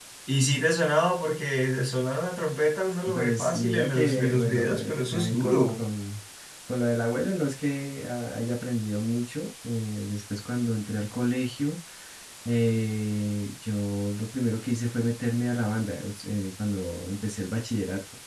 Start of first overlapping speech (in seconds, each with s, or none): 3.1 s